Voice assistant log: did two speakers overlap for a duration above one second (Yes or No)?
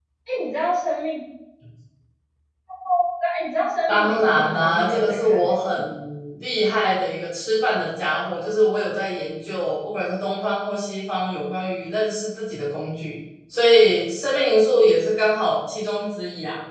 Yes